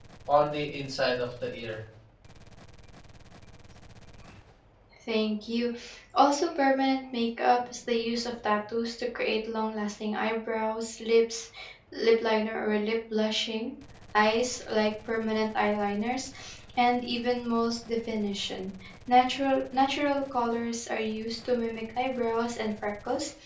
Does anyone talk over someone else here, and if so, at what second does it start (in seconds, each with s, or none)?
none